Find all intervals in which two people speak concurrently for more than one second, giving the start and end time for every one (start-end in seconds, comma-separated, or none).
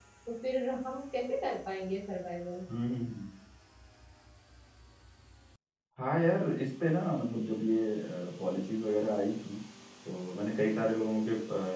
none